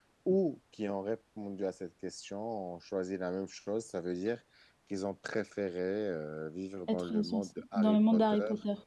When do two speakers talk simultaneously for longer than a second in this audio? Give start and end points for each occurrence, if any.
6.9-8.4

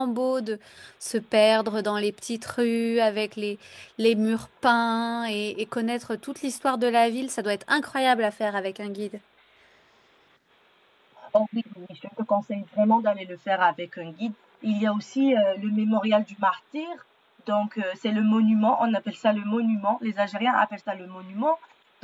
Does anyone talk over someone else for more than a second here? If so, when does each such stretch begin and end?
none

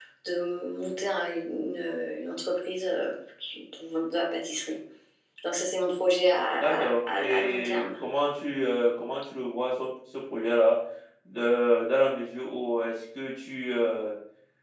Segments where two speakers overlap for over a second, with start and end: 6.6-8.0

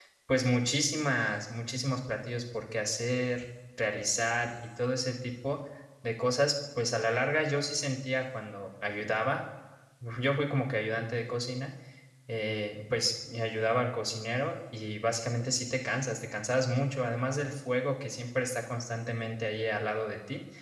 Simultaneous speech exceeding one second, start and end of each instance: none

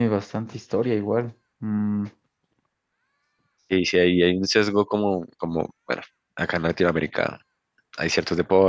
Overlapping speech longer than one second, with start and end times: none

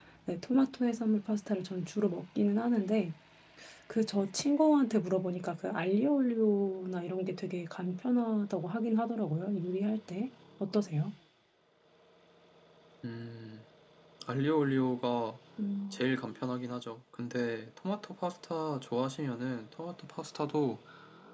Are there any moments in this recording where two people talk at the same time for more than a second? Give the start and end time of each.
none

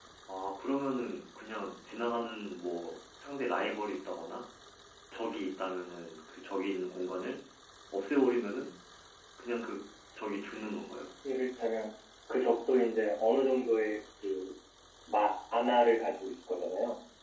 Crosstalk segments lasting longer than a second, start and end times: none

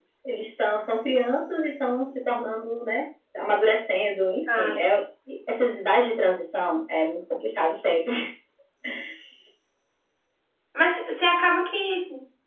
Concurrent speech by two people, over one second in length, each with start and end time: none

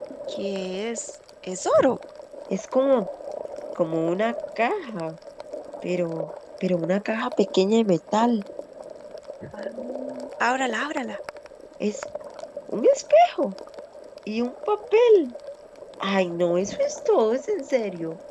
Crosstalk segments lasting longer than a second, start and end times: none

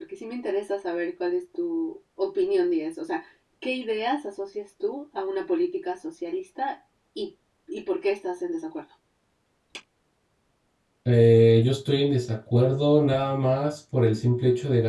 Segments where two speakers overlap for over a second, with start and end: none

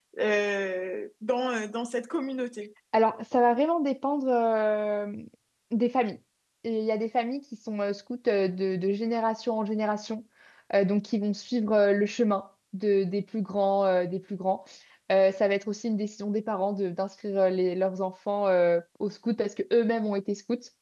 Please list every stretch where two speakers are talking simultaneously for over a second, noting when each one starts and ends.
none

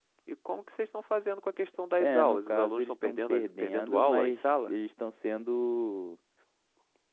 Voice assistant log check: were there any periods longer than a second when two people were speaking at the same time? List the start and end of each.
2.0-4.8

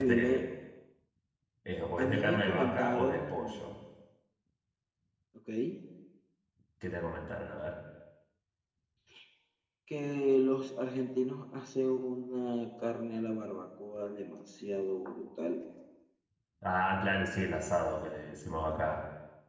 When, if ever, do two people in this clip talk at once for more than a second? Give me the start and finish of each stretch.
2.0-3.7

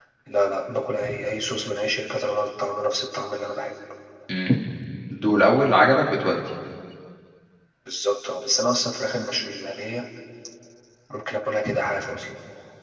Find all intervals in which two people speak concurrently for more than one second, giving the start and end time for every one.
none

